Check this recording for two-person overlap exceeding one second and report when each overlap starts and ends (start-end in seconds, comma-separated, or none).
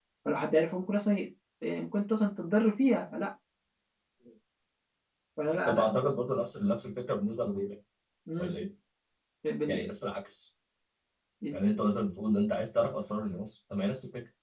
none